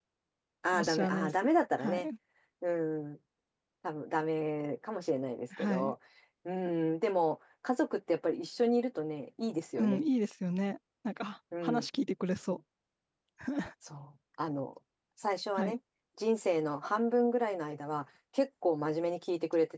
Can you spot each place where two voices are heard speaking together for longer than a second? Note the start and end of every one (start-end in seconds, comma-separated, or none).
0.7-2.1